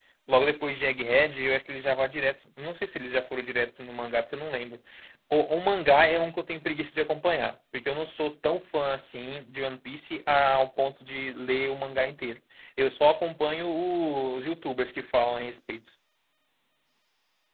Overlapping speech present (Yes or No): No